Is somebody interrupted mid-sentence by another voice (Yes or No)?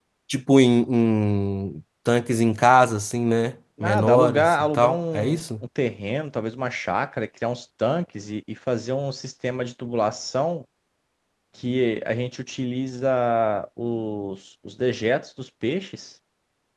Yes